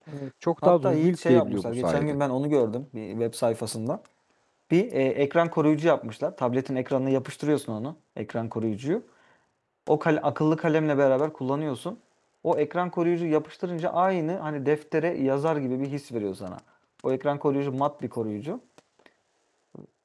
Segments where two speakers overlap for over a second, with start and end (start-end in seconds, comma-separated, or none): 0.6-2.2